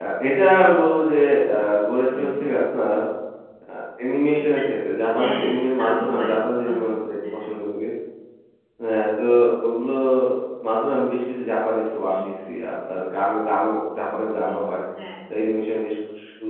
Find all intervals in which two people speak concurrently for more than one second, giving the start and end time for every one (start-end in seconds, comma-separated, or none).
5.2-6.7